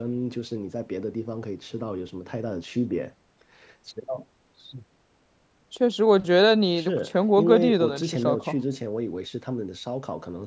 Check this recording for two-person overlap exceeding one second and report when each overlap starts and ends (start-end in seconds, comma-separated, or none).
6.8-8.5